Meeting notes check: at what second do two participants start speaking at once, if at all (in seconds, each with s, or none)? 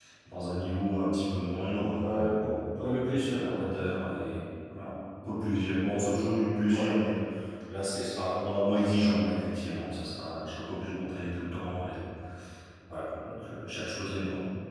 1.9 s